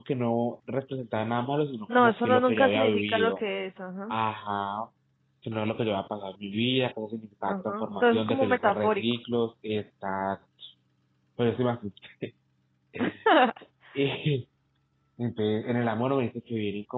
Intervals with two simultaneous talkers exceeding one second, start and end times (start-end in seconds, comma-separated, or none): 1.9-3.4, 7.5-9.0